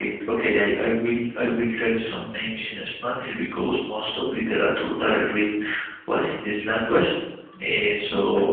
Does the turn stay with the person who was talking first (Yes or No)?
Yes